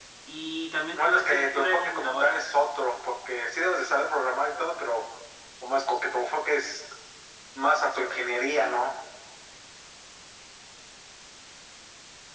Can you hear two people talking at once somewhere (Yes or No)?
Yes